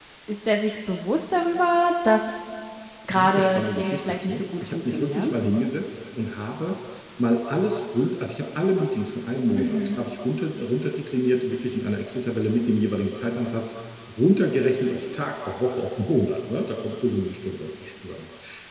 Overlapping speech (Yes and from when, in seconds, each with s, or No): Yes, from 3.1 s